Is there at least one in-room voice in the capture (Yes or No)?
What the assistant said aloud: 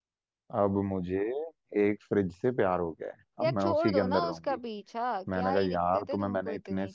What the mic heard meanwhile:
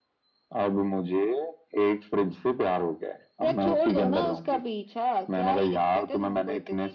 No